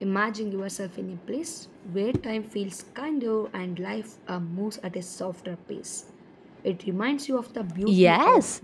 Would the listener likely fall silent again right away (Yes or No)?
No